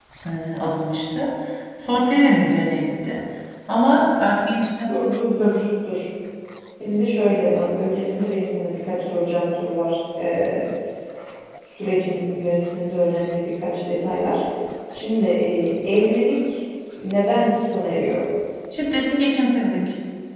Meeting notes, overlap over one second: none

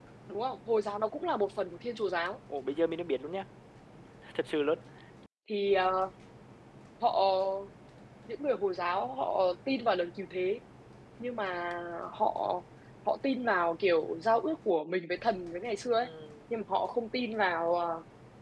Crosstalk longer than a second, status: none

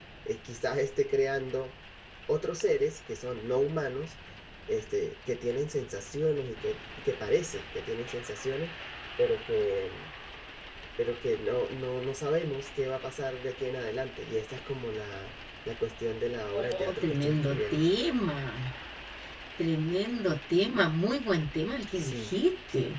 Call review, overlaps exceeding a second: present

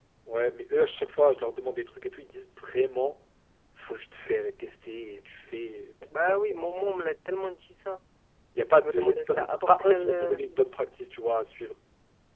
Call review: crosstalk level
present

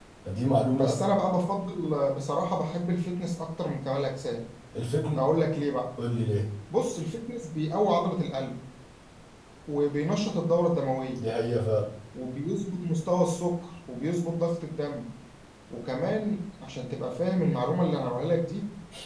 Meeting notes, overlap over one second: none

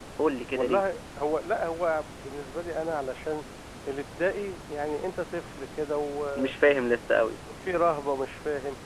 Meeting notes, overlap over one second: none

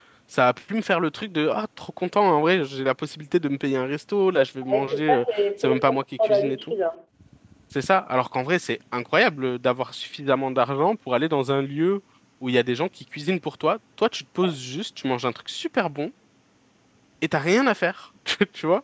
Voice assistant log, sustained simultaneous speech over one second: present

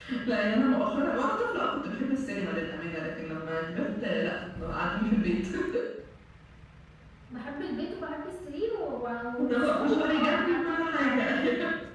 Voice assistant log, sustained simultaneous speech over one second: present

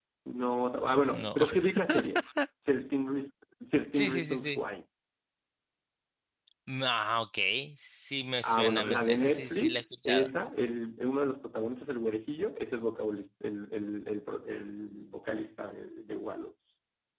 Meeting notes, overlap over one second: present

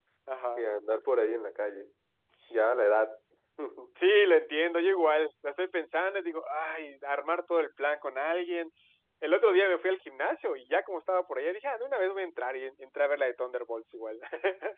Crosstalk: none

